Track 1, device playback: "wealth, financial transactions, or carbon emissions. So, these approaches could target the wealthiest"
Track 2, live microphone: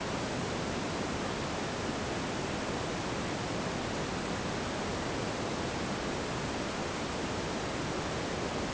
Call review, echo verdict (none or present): none